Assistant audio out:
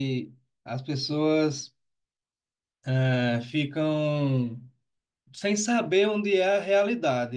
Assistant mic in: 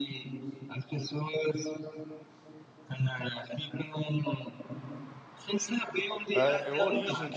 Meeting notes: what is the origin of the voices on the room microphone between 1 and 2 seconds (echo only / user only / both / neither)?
echo only